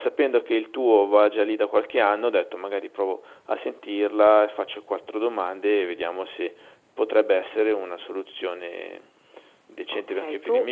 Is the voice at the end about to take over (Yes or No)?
Yes